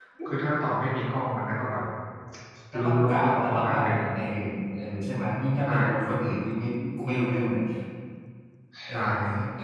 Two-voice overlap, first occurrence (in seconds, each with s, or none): 2.8 s